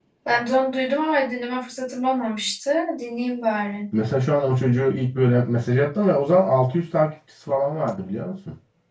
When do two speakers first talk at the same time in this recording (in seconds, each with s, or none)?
none